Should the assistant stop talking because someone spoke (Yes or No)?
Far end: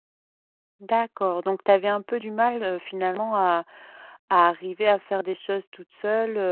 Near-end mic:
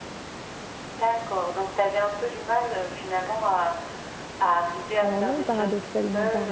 Yes